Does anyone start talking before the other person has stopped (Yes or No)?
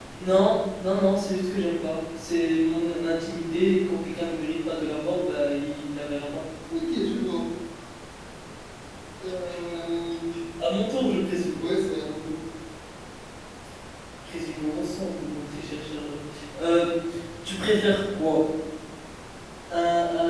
No